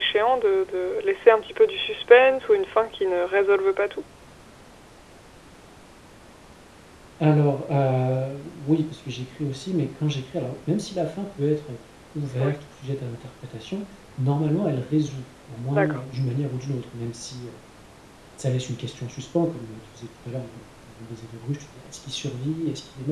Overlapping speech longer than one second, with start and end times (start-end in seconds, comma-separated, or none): none